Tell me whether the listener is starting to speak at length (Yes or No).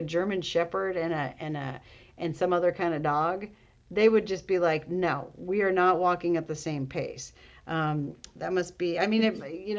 No